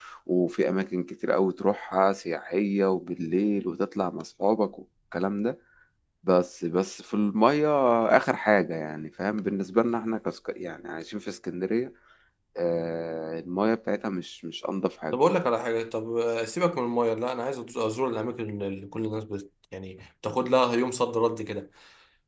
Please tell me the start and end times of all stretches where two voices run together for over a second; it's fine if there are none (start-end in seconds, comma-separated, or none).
none